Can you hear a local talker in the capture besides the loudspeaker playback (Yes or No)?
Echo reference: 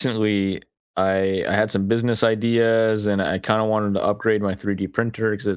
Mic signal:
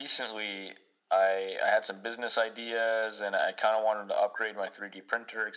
No